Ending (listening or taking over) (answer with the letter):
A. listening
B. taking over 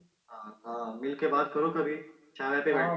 B